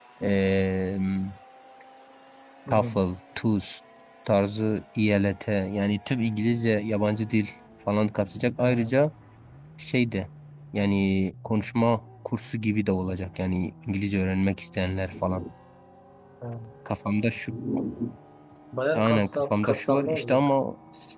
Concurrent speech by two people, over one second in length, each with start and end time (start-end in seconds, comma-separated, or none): 18.9-20.4